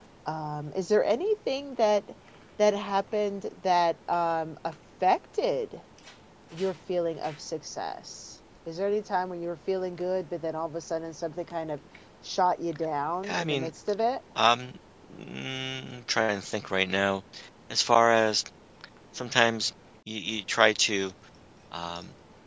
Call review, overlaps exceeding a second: none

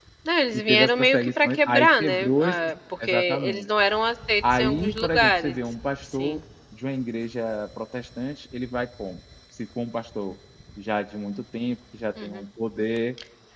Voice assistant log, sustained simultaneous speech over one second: present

